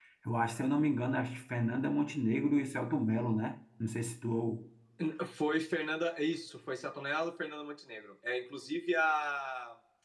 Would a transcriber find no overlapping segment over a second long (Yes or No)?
Yes